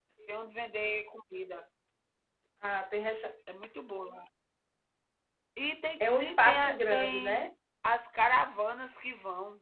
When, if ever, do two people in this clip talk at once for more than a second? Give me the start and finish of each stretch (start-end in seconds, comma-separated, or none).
6.0-7.5